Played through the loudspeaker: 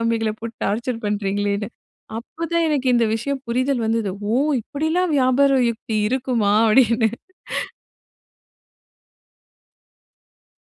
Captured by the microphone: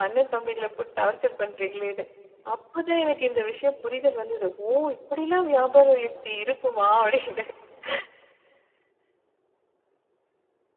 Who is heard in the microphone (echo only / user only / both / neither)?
echo only